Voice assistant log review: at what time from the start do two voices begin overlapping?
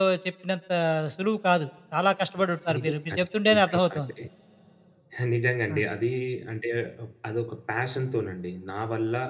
3 s

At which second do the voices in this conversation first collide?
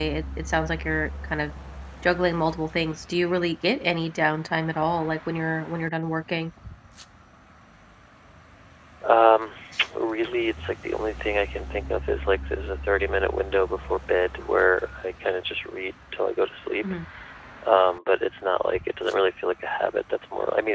none

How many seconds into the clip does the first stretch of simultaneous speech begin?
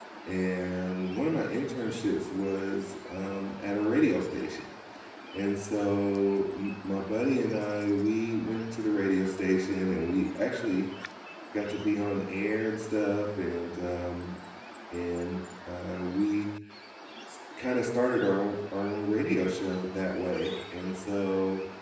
none

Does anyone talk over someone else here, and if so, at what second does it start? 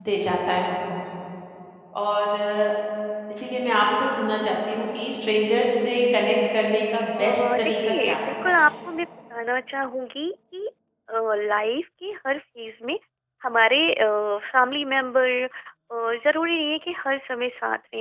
7 s

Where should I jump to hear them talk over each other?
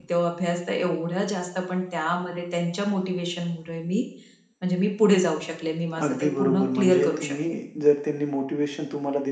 6 s

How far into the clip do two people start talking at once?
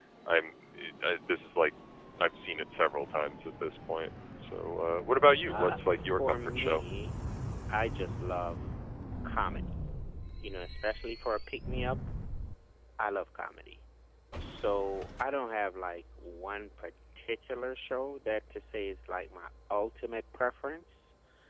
5 s

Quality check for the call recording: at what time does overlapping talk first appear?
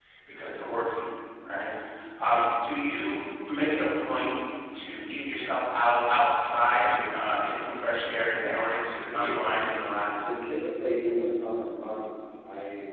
8 s

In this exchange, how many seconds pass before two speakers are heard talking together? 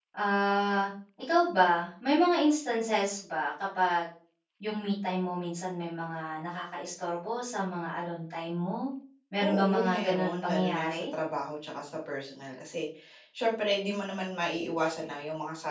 9 s

